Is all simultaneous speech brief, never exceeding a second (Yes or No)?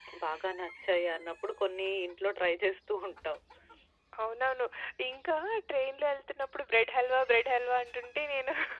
Yes